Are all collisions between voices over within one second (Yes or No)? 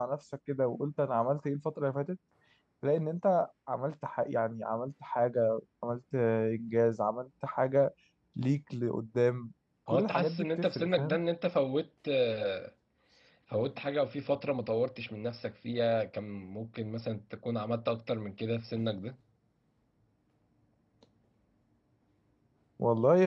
No